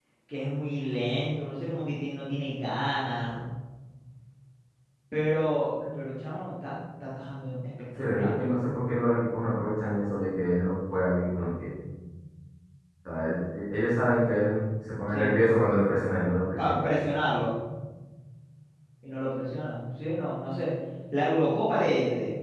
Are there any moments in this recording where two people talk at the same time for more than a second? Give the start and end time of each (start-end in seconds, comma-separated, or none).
none